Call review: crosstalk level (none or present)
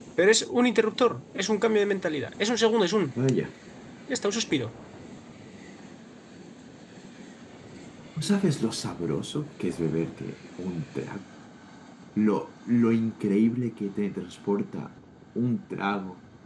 none